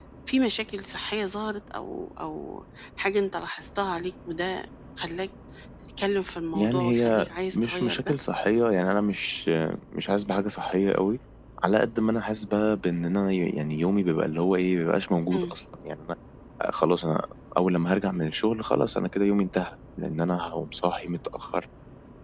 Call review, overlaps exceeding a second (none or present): present